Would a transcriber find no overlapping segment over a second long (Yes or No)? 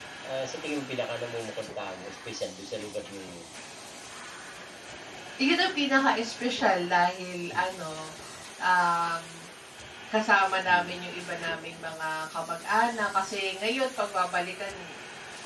Yes